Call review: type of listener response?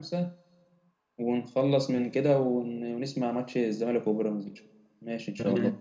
taking over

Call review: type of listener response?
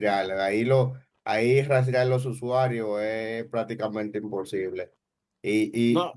listening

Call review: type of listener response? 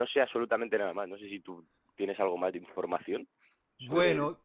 taking over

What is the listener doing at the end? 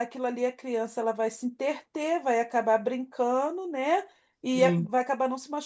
listening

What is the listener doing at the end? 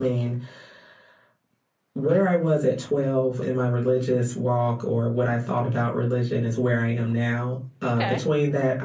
listening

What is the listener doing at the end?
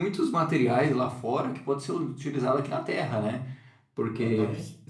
listening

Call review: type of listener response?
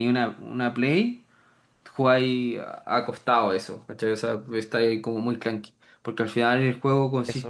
listening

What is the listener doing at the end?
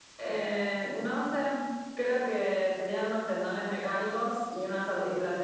listening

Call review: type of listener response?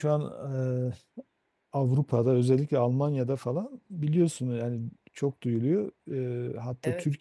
listening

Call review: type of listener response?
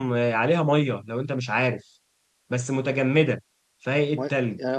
taking over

